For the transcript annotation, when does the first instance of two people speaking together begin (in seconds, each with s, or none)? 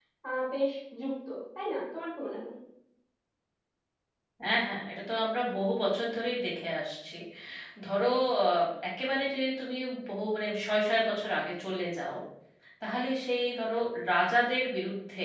none